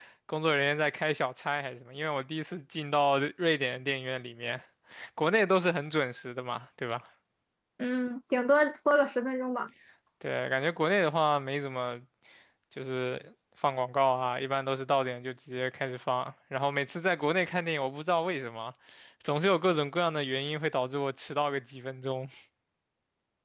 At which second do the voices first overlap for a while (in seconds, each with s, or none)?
none